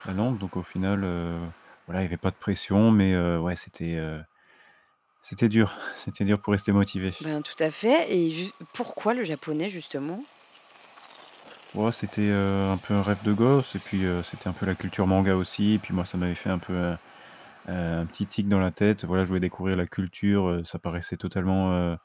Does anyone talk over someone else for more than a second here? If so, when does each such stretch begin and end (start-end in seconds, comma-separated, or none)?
none